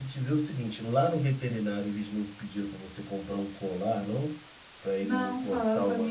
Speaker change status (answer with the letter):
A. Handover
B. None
A